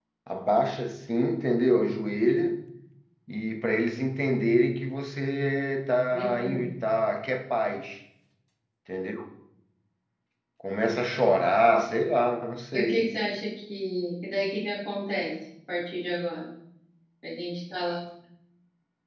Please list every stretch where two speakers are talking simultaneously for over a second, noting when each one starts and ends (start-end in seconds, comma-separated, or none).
none